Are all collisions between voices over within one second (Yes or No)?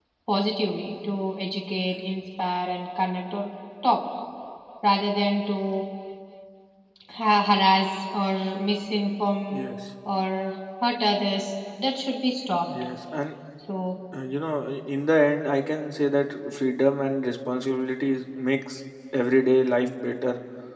Yes